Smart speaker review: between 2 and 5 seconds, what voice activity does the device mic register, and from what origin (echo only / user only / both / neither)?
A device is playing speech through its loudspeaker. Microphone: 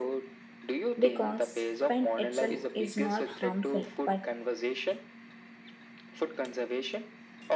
both